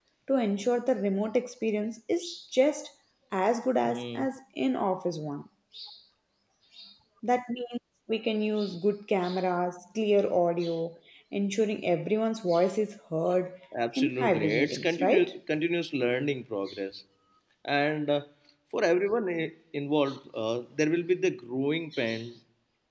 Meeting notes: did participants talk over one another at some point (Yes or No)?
Yes